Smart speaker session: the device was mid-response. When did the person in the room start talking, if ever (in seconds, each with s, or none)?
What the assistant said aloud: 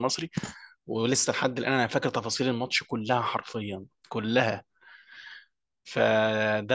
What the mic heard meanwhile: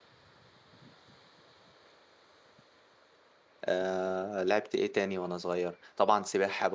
3.6 s